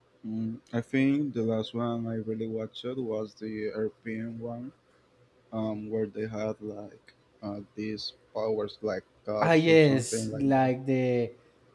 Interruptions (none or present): present